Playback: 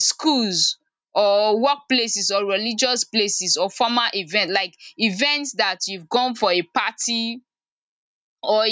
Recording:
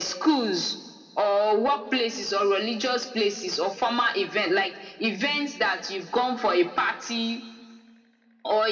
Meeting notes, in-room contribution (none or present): none